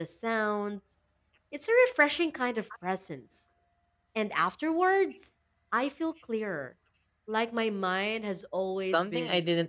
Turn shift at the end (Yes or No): Yes